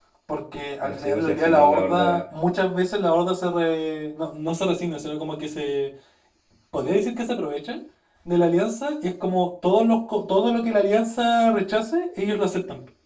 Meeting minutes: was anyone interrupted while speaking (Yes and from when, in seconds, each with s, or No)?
Yes, from 0.8 s